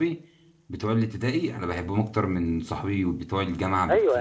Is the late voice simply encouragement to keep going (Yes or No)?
No